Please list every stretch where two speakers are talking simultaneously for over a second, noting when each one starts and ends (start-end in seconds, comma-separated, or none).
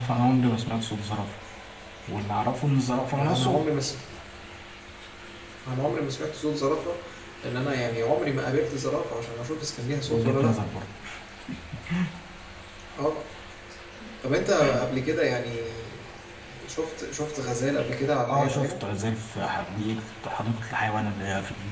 none